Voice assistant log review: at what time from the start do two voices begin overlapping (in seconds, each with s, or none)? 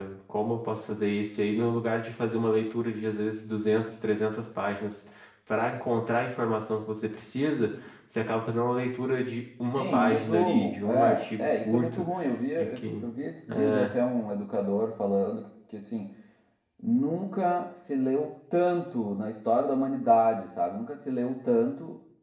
9.7 s